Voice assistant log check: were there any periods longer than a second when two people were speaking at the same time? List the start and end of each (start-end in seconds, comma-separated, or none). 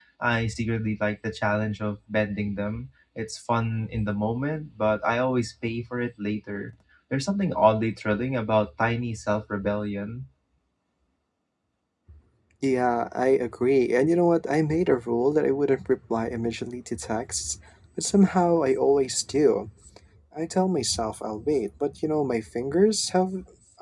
none